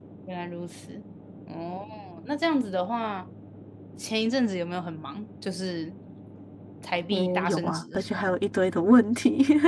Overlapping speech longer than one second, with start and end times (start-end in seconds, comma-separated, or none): 7.1-8.4